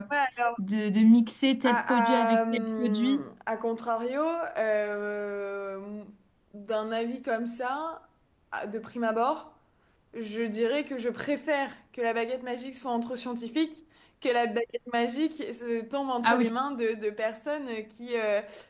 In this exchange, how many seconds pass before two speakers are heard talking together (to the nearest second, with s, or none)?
2 s